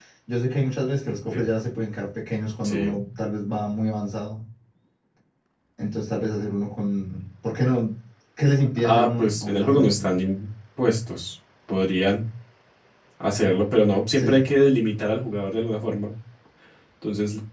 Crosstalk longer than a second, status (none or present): present